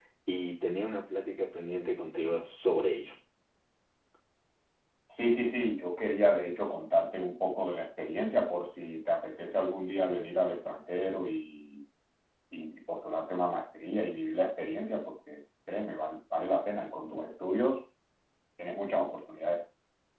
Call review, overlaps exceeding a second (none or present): none